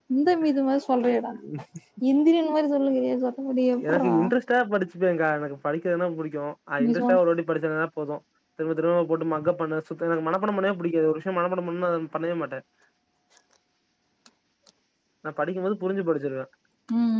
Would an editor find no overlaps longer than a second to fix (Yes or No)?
Yes